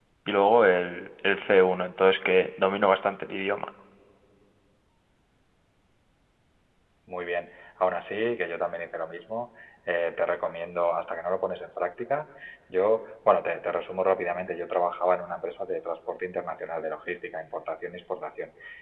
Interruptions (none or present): none